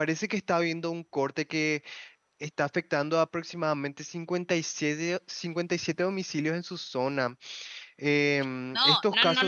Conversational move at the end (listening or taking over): taking over